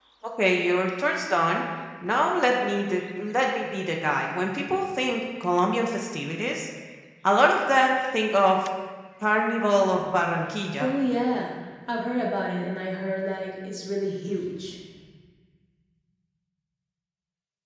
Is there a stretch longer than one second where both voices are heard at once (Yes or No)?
No